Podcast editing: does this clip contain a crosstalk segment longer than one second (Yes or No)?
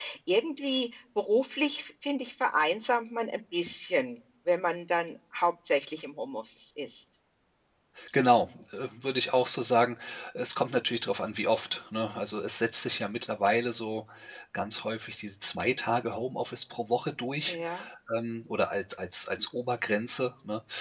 No